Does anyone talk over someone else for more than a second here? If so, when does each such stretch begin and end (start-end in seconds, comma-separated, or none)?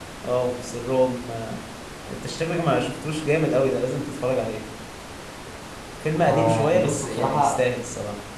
6.2-7.6